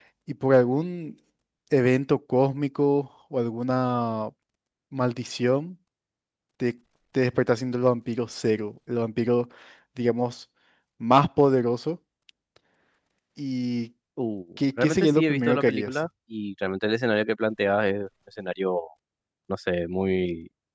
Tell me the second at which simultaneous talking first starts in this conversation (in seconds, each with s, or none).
14.8 s